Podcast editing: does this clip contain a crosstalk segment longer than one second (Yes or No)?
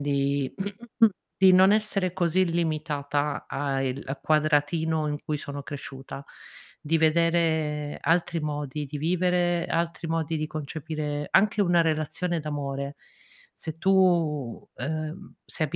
No